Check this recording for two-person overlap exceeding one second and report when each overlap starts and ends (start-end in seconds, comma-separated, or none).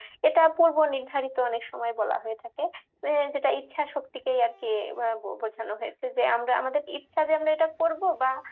none